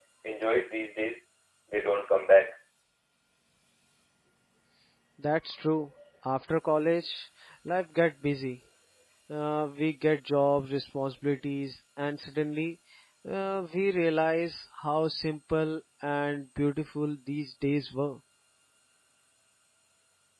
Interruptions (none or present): none